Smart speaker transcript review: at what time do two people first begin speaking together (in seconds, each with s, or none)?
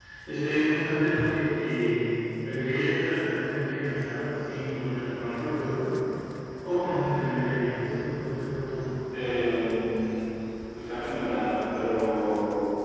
none